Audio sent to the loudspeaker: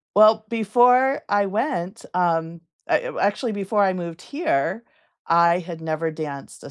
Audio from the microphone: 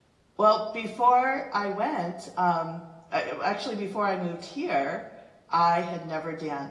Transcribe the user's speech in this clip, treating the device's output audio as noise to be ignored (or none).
none